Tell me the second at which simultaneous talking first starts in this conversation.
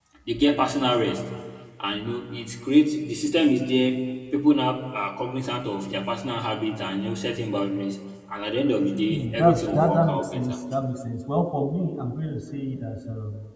9.1 s

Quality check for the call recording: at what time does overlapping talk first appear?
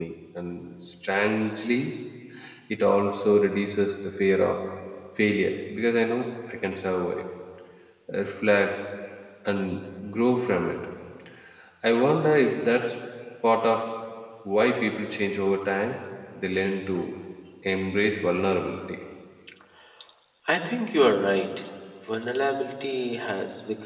none

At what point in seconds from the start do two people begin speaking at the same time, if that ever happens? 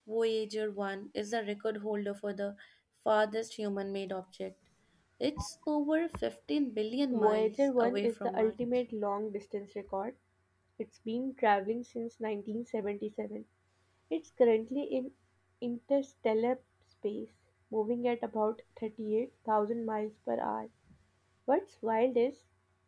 7.1 s

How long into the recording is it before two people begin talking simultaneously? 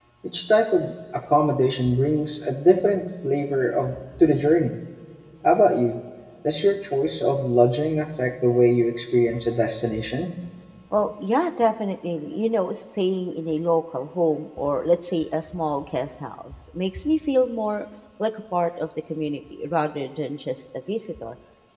none

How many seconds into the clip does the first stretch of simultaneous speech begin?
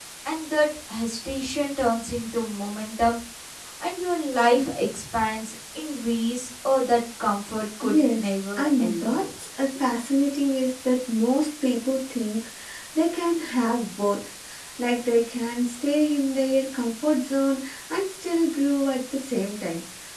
7.8 s

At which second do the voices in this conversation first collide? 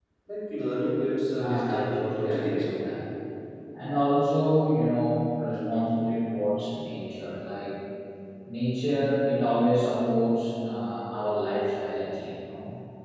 1.4 s

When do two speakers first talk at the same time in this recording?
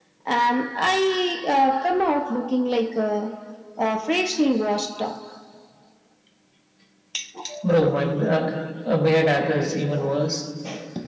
none

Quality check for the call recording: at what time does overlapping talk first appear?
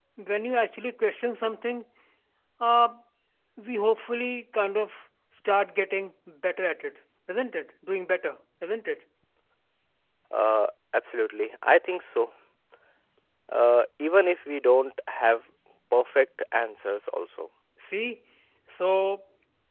none

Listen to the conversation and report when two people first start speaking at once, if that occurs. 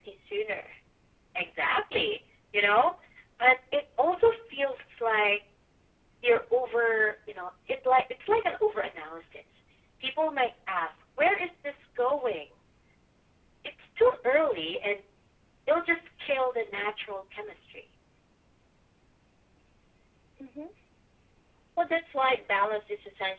none

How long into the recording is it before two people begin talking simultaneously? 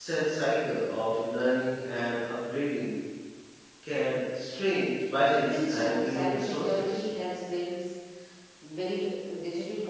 5.4 s

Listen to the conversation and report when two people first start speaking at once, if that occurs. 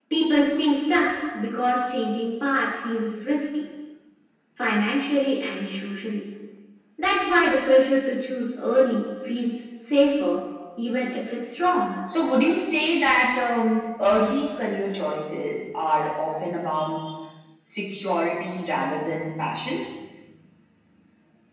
none

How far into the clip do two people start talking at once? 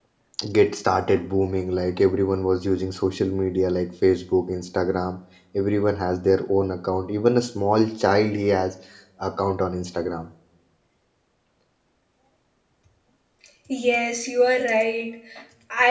none

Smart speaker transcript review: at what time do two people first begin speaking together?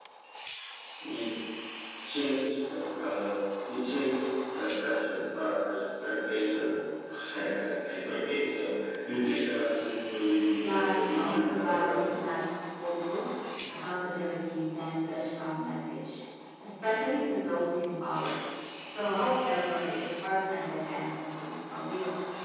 10.6 s

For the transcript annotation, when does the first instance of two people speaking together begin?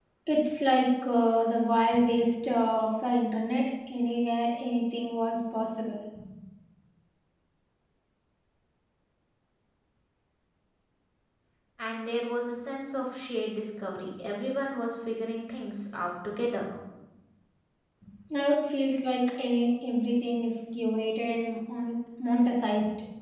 none

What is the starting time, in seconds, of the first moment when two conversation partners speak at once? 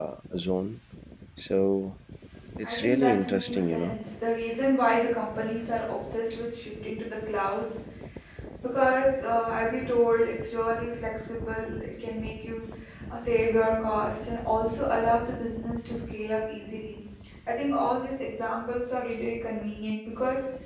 2.6 s

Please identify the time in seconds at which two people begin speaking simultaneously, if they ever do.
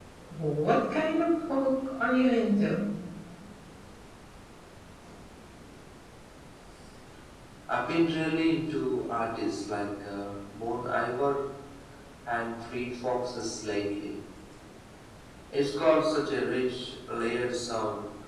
none

